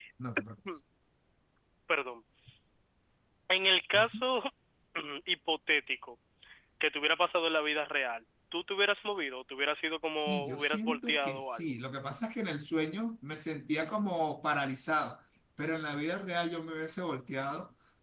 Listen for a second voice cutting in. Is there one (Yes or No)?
Yes